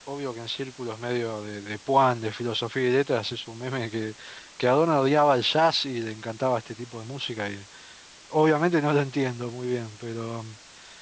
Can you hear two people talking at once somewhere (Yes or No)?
No